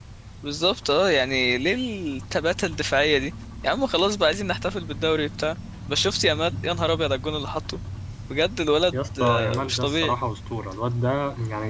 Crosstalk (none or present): present